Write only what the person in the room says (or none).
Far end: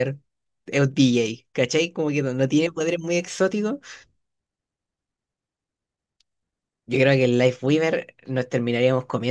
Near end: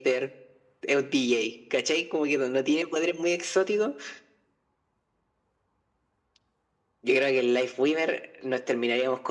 none